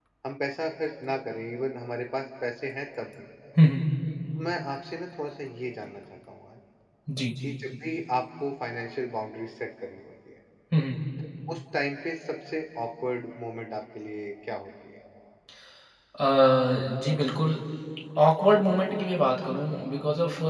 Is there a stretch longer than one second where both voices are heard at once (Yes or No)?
No